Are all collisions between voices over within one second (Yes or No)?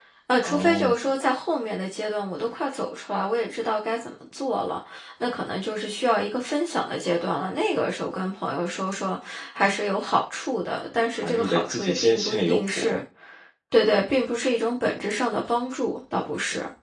No